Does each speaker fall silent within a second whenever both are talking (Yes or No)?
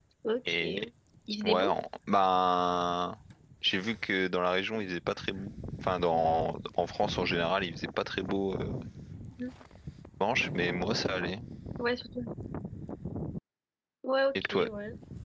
Yes